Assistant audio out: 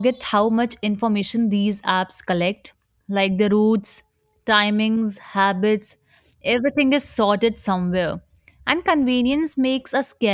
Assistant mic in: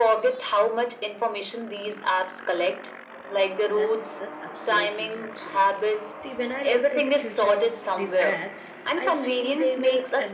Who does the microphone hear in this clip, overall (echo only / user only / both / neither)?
both